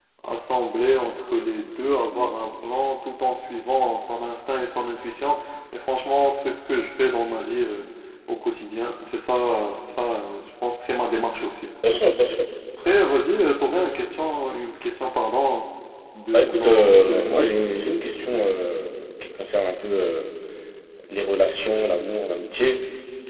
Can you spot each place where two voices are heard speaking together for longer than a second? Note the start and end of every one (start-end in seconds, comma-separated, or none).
16.3-17.6